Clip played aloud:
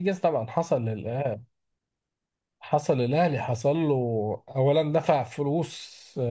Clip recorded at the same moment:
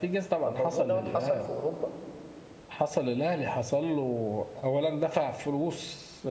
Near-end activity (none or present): present